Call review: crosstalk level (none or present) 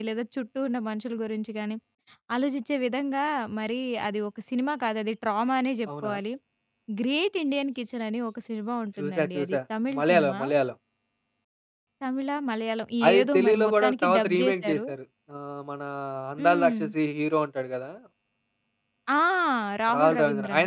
present